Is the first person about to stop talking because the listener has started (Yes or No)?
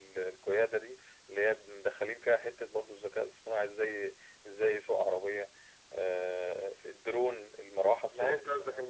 Yes